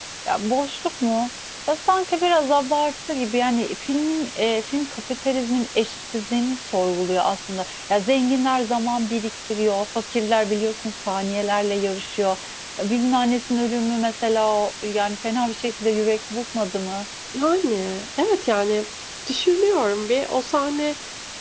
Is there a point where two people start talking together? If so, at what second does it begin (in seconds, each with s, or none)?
none